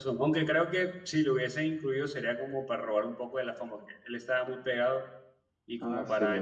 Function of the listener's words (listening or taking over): listening